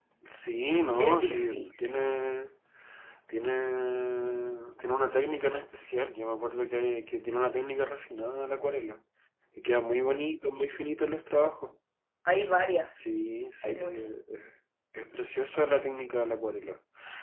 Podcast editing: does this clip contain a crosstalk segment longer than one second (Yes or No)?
Yes